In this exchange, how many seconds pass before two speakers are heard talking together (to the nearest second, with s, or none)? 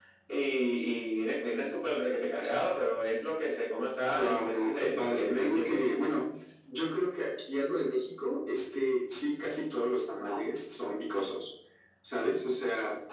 4 s